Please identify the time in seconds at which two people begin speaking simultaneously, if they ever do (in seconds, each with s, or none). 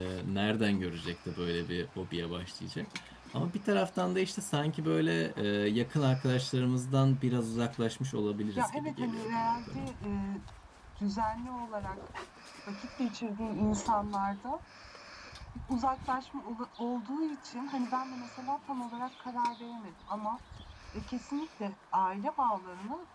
8.6 s